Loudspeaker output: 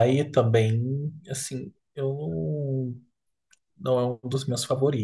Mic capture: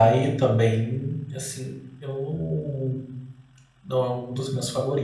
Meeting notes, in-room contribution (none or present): none